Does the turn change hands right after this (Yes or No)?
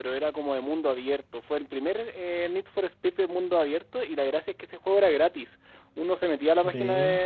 No